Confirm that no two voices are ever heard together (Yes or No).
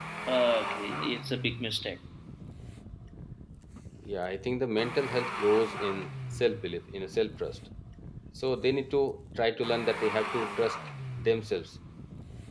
Yes